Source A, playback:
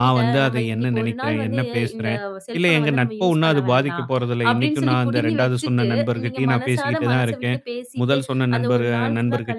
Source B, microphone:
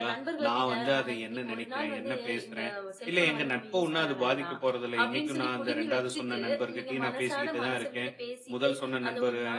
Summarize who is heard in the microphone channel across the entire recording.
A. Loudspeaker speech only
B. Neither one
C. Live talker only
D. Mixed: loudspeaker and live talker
A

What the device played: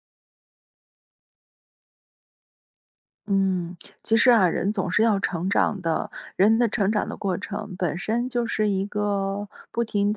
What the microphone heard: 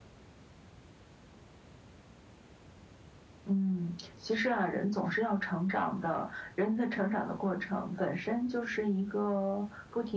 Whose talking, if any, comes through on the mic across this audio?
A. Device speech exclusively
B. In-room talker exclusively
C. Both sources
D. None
A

